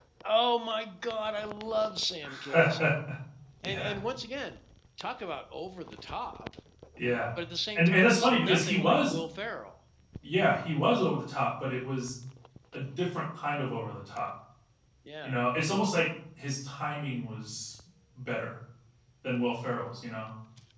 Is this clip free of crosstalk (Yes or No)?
No